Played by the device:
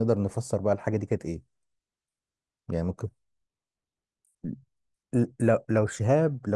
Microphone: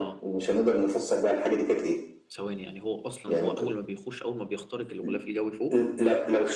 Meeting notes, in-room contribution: present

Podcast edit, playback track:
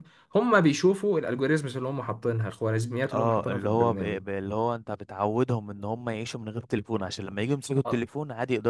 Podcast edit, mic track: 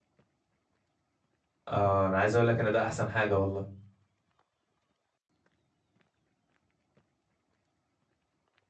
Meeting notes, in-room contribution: present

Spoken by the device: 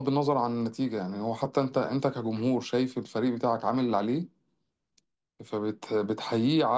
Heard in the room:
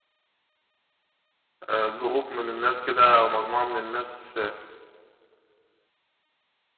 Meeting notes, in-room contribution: present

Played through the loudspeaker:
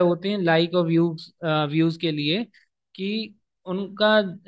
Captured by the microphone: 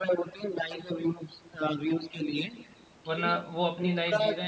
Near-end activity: present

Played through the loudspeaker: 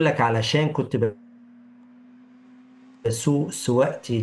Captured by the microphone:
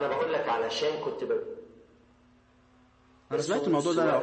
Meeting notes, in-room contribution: present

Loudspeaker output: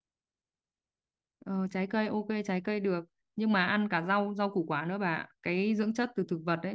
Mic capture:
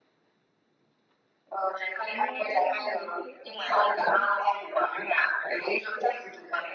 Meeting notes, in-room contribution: present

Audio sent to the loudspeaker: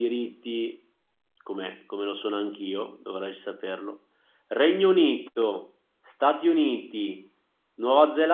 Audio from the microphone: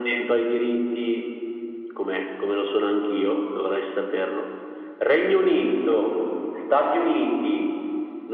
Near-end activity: none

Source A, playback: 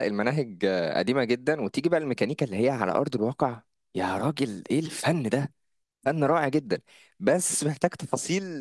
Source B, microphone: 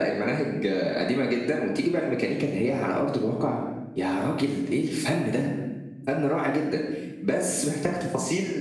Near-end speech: none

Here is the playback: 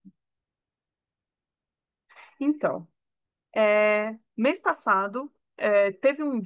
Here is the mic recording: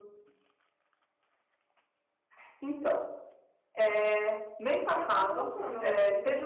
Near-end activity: present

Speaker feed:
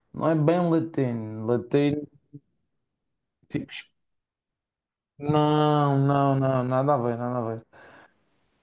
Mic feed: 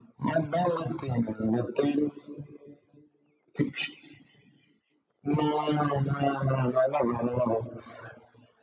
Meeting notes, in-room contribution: none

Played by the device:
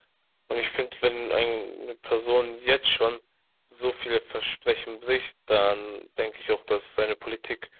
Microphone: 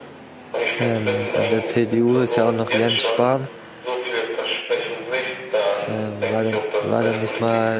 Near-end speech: present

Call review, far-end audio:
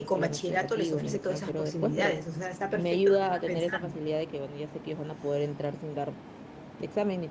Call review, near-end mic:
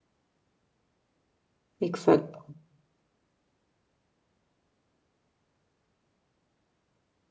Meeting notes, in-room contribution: present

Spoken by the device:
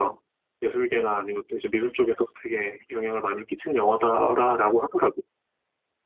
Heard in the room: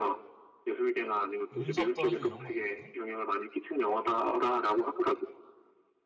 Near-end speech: present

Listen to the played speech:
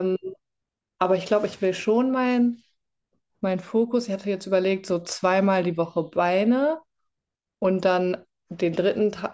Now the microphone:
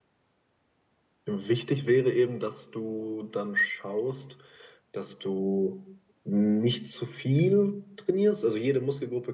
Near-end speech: present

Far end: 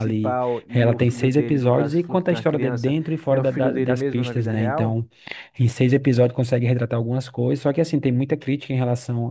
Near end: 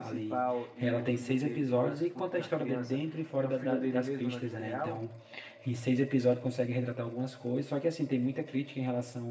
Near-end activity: none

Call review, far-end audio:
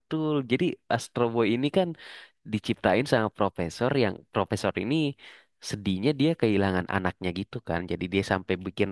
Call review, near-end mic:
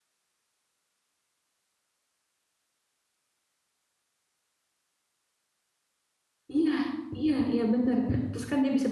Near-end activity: present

